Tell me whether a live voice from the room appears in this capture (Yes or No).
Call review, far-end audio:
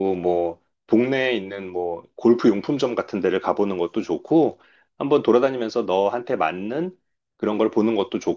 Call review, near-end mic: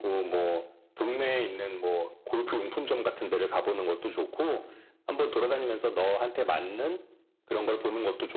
No